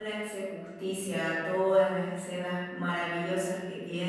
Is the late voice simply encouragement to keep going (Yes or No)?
Yes